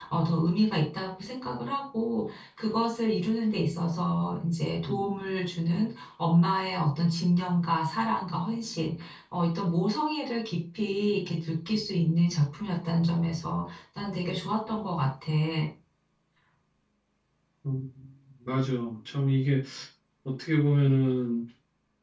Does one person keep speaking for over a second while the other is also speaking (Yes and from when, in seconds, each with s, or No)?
No